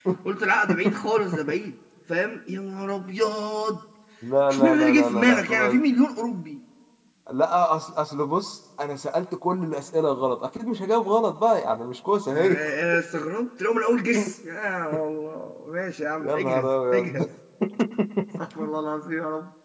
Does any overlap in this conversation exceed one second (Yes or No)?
Yes